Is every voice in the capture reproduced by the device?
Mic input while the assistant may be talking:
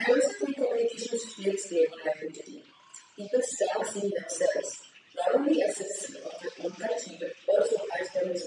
Yes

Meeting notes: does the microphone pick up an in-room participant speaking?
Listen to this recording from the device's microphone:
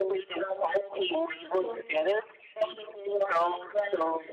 No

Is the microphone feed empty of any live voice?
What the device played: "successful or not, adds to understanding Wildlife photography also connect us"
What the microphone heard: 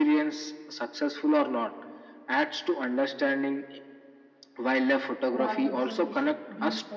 No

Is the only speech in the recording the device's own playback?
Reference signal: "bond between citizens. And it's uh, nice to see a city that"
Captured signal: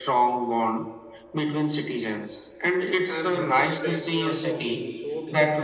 No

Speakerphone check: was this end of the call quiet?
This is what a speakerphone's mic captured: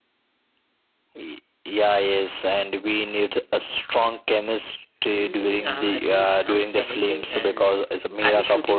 No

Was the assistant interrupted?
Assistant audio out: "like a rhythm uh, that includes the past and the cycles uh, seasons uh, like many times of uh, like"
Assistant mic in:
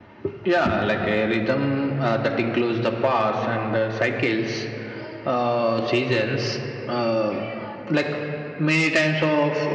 No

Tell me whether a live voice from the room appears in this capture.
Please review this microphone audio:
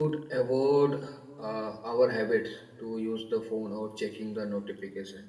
Yes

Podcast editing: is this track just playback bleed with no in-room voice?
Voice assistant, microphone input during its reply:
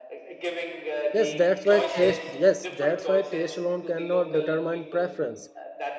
No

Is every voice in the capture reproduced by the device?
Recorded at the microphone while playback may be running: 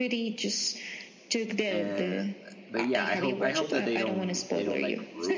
No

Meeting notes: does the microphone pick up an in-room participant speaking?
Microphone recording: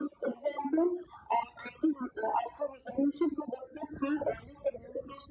No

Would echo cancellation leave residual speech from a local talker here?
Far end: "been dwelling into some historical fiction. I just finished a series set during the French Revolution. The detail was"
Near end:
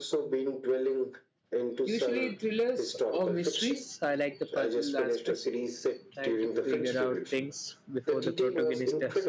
Yes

